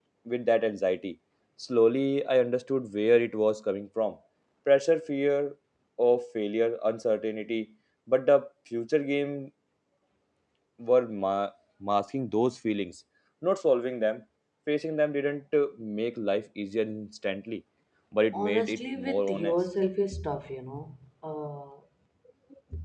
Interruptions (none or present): present